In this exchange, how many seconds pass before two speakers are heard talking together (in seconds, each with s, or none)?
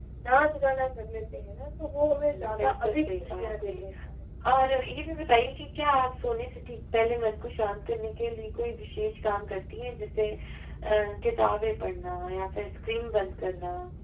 2.1 s